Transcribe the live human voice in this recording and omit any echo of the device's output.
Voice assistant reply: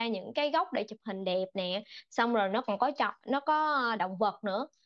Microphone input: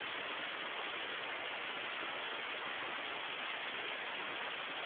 none

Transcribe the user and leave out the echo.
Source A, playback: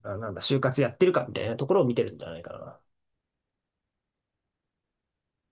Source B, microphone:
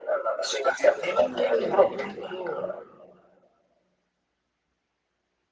自分もね、面接を

